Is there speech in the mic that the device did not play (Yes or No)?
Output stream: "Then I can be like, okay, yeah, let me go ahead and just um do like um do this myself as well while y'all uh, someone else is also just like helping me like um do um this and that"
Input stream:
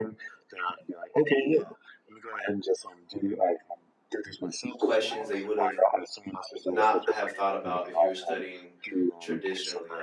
Yes